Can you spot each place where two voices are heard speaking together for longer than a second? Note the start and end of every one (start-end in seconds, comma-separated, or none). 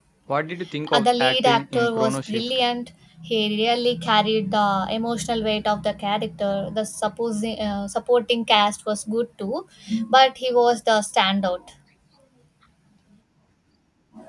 0.9-2.4